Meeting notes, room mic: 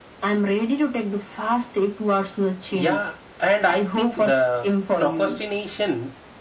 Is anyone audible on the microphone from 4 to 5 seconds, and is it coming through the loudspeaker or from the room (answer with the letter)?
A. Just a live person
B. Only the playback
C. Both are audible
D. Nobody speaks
C